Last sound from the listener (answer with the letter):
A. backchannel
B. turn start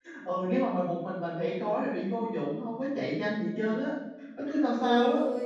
B